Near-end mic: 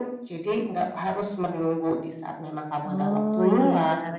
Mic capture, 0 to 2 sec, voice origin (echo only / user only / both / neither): echo only